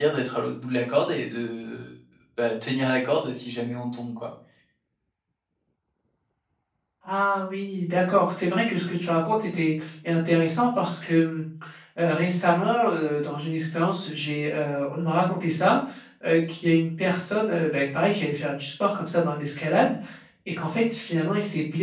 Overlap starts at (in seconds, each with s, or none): none